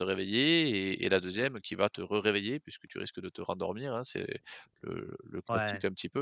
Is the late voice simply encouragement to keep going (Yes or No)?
Yes